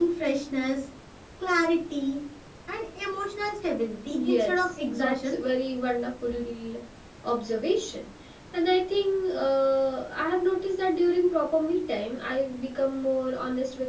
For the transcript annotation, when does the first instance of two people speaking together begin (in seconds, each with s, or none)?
4.1 s